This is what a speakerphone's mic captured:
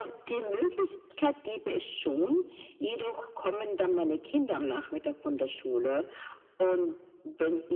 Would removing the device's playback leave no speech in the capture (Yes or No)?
Yes